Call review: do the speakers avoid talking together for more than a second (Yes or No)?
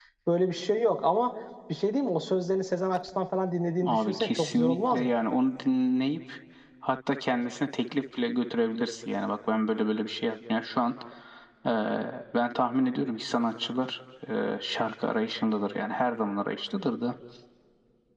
No